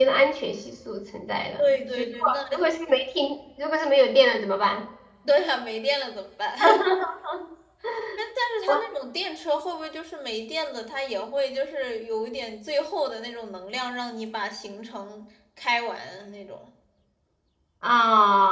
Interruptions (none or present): present